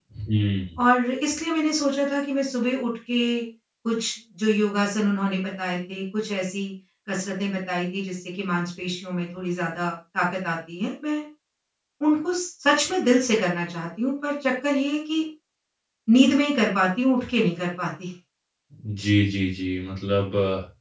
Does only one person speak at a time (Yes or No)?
Yes